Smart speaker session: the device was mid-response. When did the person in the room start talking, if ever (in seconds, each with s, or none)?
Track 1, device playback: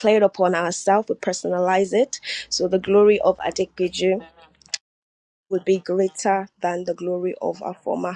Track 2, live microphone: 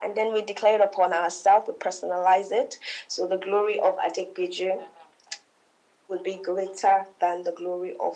none